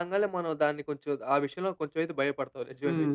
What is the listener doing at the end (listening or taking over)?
taking over